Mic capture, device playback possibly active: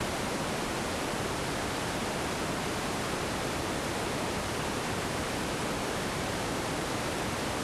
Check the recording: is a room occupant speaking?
No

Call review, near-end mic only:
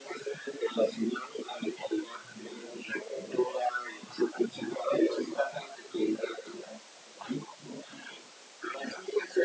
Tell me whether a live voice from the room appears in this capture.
No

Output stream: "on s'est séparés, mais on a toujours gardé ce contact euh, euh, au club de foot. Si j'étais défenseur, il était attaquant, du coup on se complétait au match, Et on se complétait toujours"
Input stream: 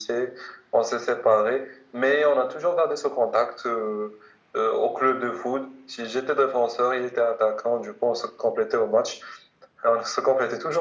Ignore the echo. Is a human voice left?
No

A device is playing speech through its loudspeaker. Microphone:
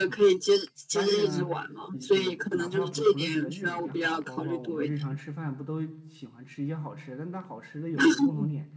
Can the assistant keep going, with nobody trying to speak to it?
No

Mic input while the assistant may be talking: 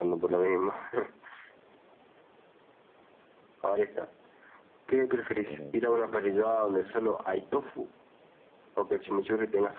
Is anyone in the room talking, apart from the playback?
Yes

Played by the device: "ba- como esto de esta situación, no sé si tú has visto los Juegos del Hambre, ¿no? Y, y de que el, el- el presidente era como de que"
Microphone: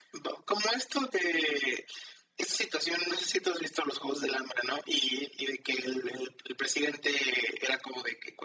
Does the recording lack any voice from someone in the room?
Yes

